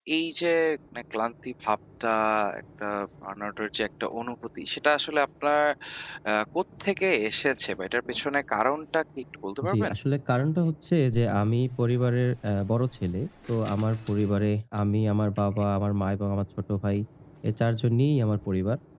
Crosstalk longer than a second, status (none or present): none